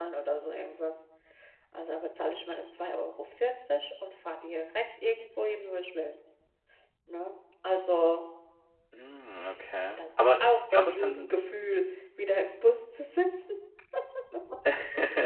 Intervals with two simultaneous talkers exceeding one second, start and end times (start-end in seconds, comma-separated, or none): 10.0-11.3